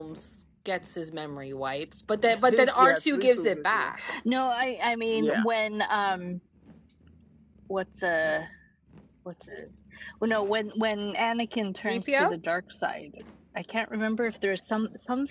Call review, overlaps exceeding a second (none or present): present